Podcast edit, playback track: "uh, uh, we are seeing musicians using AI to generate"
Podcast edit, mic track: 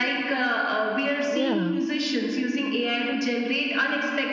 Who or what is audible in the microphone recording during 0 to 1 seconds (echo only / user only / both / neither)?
echo only